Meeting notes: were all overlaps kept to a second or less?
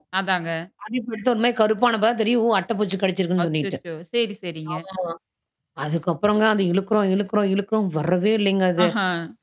Yes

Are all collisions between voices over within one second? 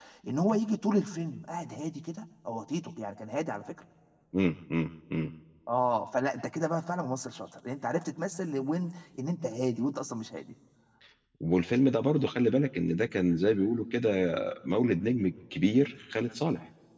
Yes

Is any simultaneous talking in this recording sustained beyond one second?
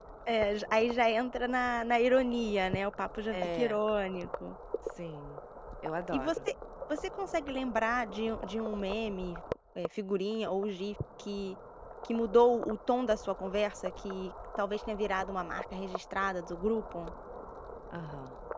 No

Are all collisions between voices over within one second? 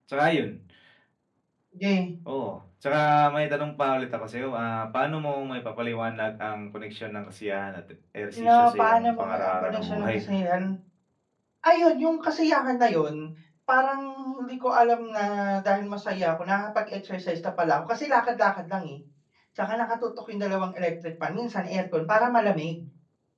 No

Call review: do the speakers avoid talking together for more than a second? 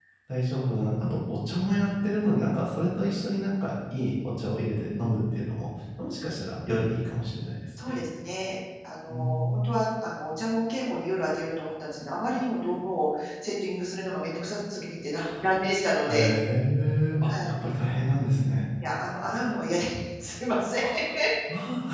Yes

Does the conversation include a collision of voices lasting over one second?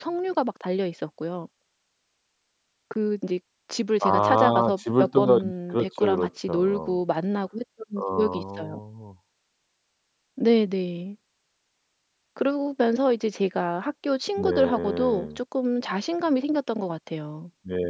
Yes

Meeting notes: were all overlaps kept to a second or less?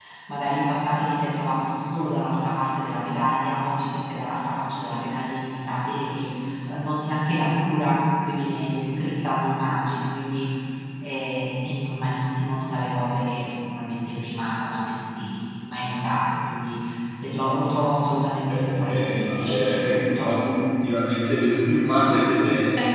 No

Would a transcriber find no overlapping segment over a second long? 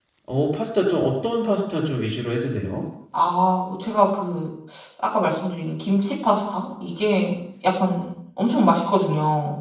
Yes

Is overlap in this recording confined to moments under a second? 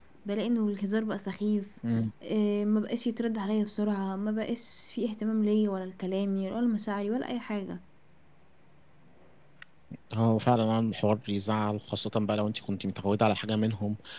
Yes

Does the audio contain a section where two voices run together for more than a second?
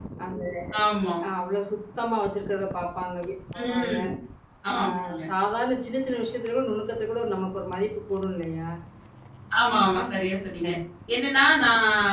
No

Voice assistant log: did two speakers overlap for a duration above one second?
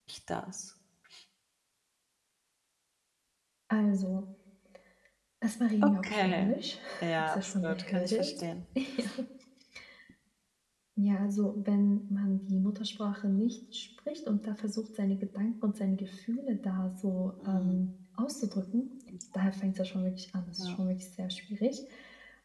Yes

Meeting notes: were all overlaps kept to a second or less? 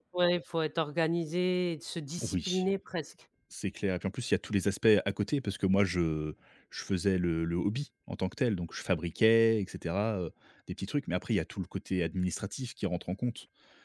Yes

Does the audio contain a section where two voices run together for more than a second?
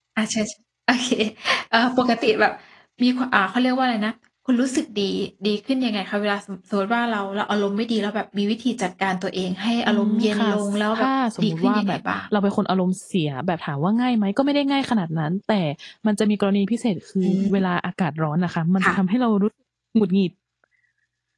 Yes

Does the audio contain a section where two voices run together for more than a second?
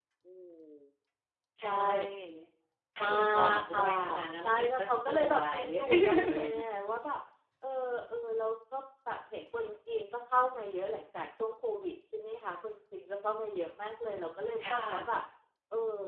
Yes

